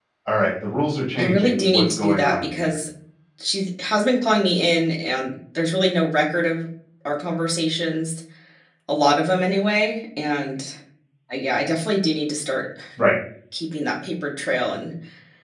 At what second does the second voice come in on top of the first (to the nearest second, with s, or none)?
1 s